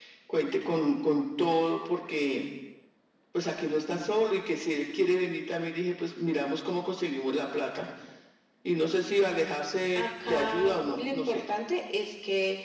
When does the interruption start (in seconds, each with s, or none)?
9.9 s